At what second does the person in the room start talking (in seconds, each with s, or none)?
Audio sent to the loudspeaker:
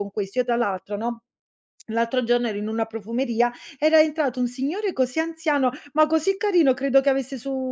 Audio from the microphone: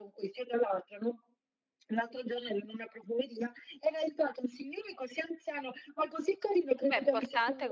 6.8 s